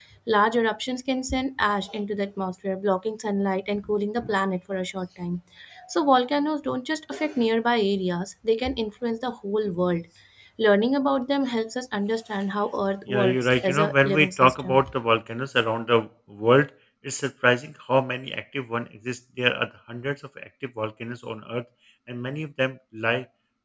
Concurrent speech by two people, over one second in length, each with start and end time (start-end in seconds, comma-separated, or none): 13.1-14.8